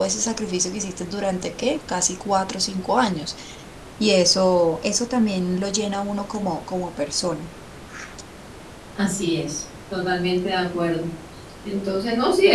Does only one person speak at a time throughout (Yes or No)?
Yes